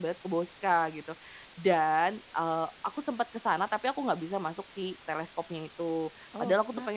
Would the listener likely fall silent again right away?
Yes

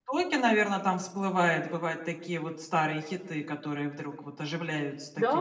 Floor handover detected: Yes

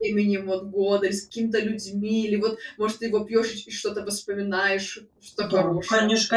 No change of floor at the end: No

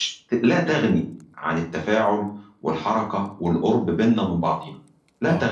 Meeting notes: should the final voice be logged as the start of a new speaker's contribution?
Yes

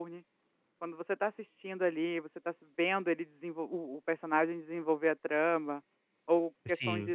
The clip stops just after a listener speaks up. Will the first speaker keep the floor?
Yes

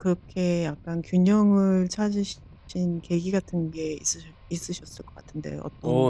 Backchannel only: No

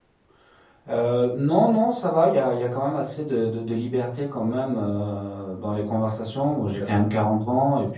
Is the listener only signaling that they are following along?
Yes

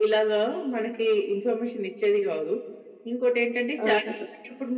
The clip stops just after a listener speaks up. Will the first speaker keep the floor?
Yes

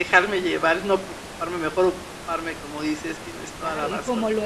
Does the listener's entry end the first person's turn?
Yes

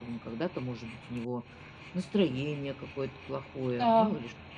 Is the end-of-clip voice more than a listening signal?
No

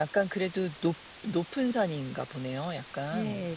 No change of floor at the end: No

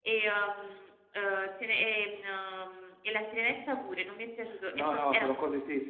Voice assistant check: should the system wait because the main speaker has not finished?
No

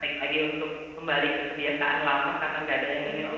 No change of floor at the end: No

